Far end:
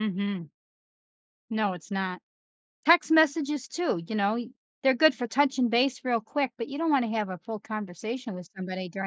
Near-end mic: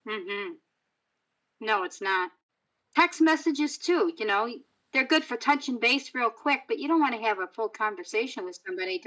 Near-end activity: none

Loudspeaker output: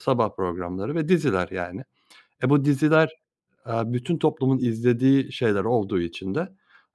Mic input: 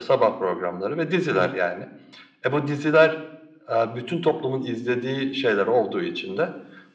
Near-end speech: present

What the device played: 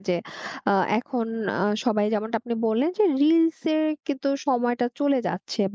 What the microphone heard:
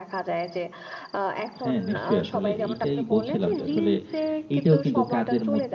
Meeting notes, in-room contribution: present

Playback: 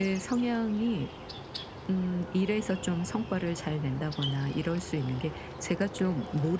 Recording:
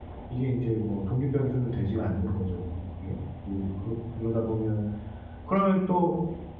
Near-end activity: present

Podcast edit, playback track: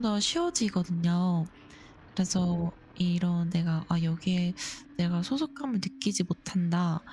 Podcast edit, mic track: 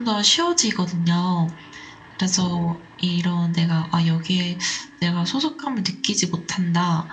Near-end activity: none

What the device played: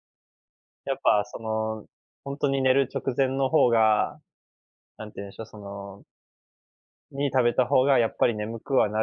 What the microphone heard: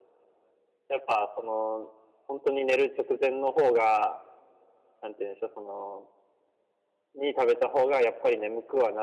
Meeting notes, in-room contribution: none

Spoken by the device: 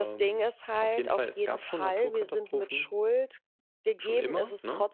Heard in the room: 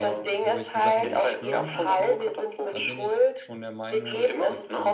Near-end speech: present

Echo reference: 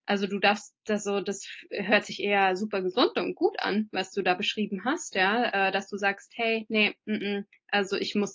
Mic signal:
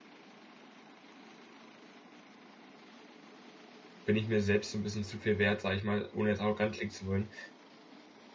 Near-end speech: present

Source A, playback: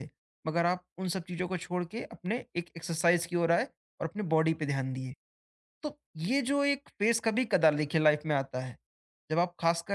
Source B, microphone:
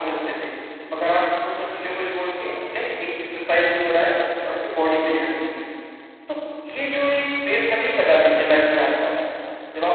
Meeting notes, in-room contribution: none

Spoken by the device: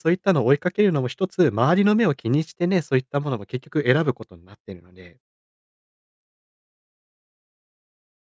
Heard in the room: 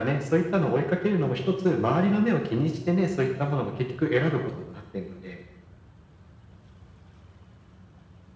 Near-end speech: none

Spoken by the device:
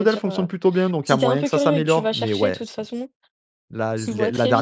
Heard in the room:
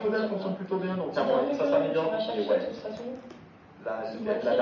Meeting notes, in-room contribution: none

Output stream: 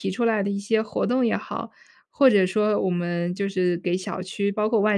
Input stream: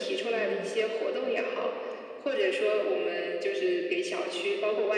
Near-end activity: present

